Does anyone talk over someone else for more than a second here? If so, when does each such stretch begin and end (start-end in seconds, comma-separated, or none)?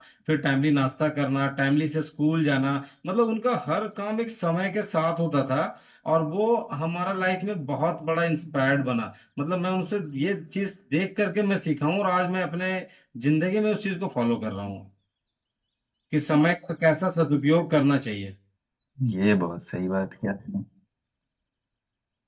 none